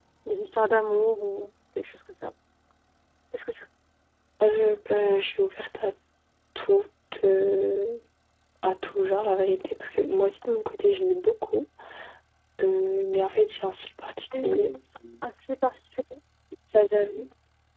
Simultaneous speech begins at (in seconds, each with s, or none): none